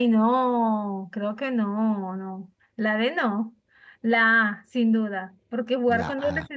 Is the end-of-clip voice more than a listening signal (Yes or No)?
No